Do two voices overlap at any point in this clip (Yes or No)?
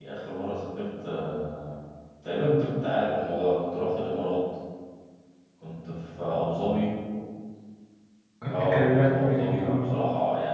Yes